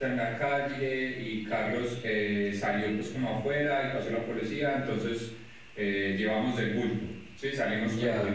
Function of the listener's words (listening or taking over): taking over